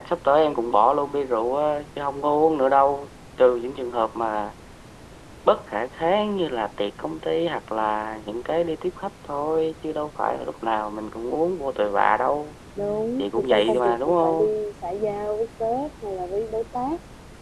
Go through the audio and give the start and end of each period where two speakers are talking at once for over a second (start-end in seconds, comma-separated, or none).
13.2-14.5